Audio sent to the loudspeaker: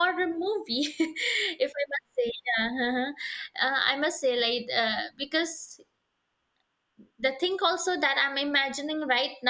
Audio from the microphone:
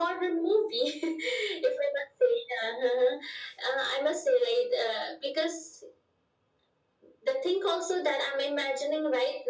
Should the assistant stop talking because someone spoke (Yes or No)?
No